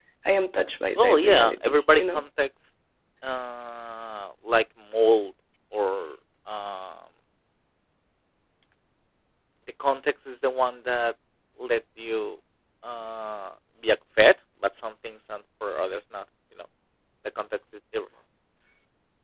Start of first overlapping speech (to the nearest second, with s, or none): 1 s